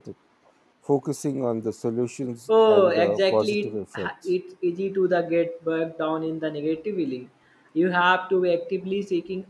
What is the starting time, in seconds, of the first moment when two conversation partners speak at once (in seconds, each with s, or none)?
2.5 s